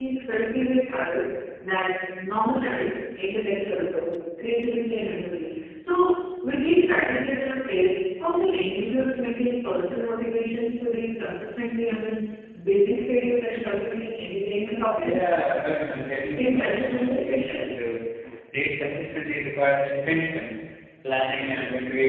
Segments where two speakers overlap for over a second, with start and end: 16.4-17.7

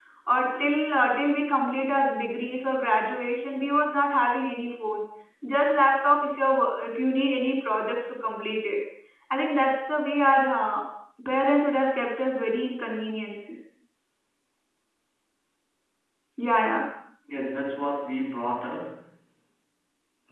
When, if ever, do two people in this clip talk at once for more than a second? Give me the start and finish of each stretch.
none

